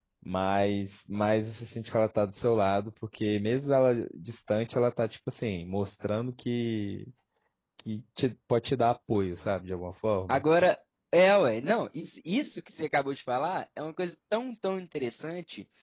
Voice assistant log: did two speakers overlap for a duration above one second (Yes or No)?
No